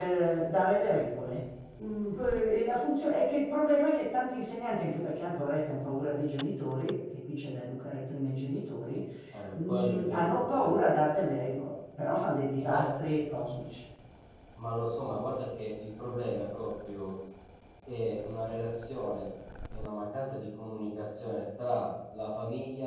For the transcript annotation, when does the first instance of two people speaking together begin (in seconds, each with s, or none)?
9.6 s